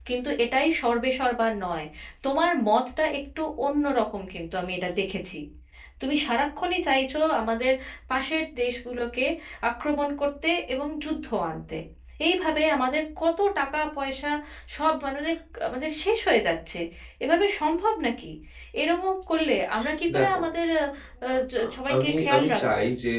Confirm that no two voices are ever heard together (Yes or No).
No